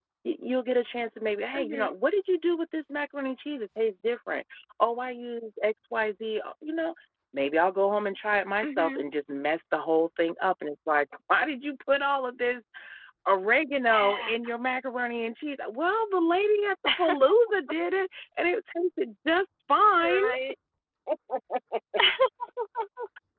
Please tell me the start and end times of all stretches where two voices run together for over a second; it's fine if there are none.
none

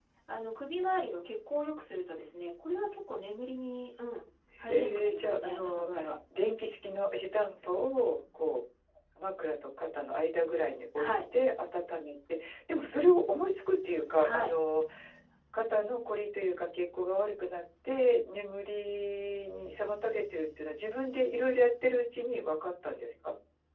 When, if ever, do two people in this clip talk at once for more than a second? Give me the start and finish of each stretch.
4.6-5.9

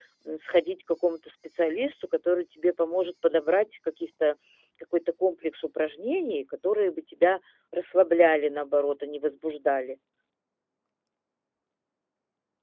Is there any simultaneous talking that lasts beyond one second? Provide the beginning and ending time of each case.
none

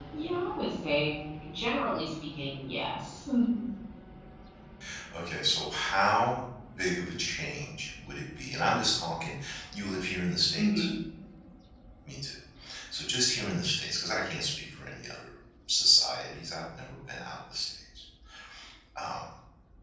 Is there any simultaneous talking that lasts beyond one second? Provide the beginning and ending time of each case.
none

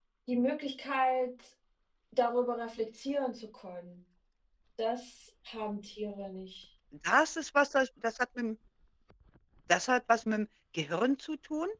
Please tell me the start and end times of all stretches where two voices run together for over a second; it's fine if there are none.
none

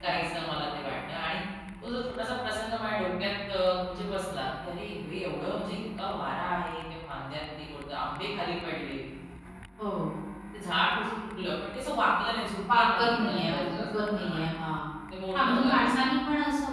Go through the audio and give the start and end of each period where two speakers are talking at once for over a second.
12.7-14.4

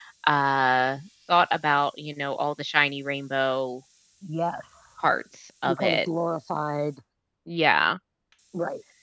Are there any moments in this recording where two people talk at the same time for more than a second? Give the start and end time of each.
none

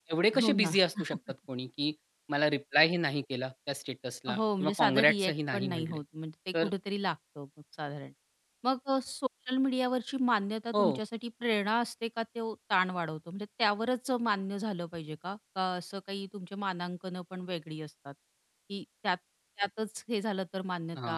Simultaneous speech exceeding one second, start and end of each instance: 4.4-6.0

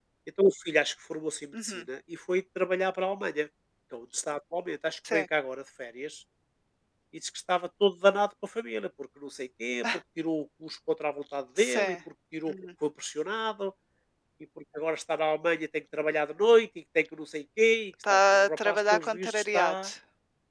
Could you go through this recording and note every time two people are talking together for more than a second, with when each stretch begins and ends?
18.1-19.9

